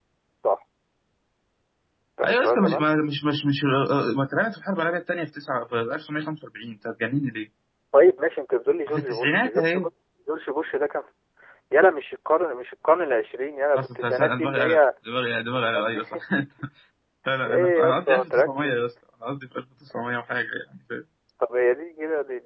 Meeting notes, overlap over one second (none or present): present